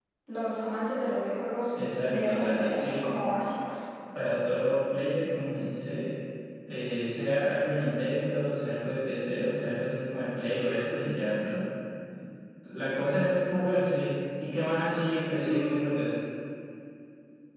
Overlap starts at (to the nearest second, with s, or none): 2 s